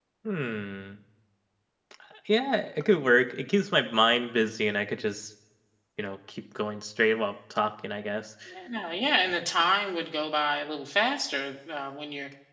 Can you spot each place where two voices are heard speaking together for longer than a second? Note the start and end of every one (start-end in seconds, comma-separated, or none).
none